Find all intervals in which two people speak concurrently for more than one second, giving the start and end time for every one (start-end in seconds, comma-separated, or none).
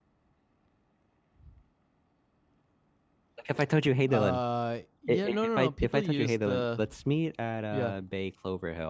5.1-6.8